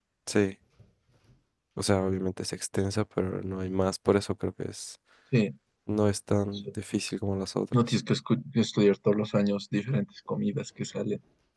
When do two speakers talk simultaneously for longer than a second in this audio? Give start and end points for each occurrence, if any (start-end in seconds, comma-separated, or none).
none